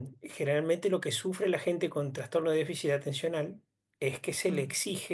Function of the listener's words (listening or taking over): listening